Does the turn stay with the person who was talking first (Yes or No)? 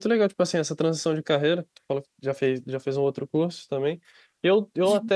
Yes